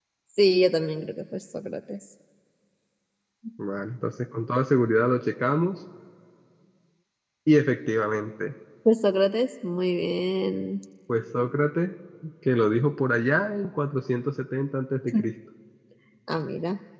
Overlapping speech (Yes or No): No